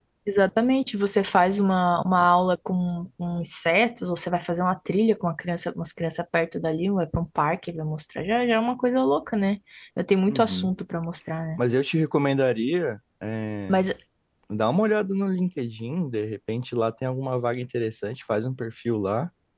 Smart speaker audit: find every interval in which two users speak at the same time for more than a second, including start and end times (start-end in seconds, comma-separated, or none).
none